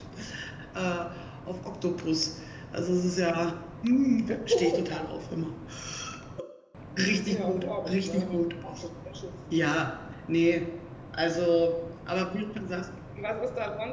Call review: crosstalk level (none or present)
present